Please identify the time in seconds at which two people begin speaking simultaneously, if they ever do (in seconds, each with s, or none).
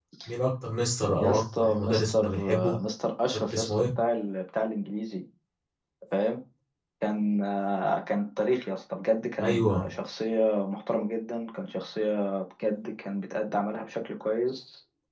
1.2 s